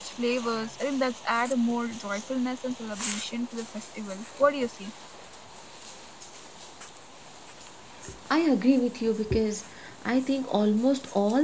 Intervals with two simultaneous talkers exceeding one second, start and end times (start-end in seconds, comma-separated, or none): none